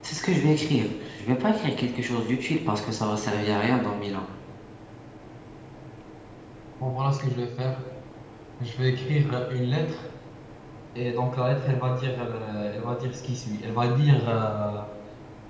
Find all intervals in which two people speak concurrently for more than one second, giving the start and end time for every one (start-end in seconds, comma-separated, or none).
none